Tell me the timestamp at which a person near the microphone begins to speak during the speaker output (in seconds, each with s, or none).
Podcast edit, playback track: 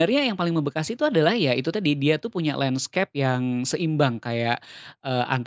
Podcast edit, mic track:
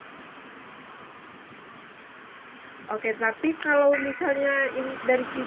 2.9 s